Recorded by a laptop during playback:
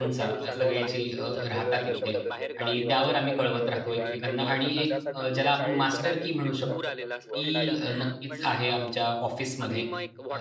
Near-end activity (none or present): present